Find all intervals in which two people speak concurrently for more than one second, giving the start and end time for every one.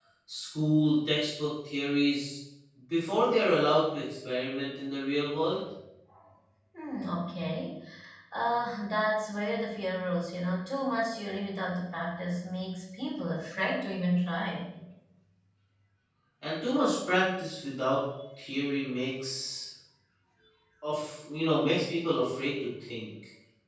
none

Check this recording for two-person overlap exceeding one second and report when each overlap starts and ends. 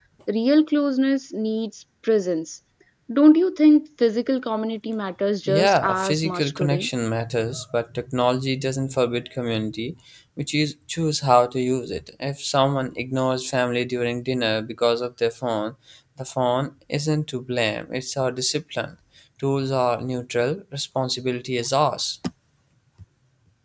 5.5-6.9

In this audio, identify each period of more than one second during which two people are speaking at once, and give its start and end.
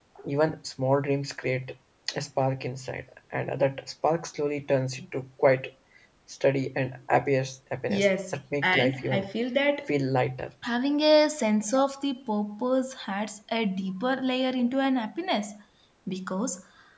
7.9-9.3

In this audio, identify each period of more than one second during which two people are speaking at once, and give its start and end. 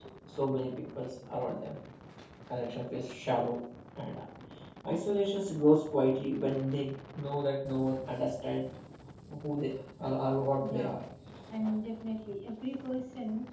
none

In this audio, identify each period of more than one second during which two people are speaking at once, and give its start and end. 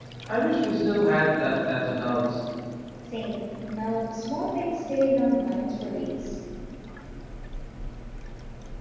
none

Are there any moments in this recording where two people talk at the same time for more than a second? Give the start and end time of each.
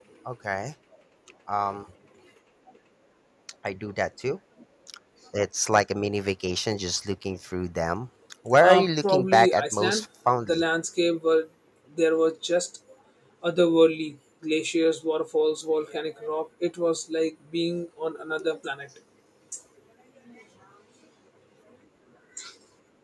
8.6-10.0

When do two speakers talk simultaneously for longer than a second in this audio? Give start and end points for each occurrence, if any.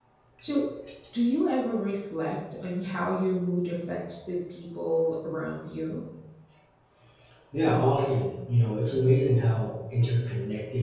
none

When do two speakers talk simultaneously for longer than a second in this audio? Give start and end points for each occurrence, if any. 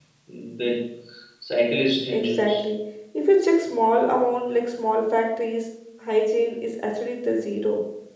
none

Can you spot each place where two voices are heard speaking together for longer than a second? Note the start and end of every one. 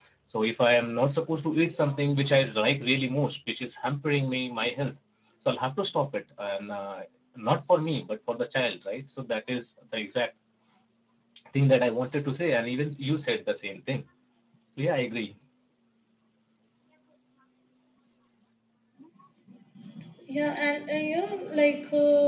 none

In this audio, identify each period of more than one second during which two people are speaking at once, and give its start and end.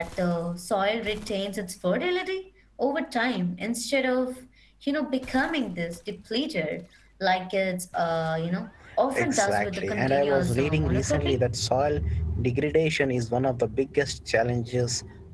9.1-11.4

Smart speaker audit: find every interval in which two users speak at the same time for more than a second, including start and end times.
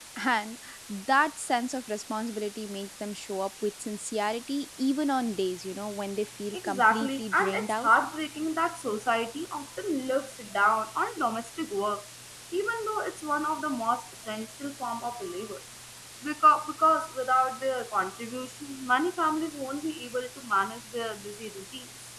6.5-7.9

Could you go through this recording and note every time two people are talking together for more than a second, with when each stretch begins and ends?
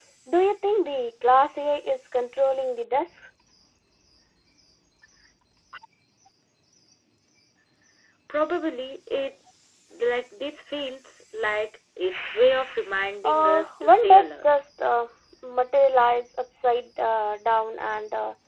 13.2-14.4

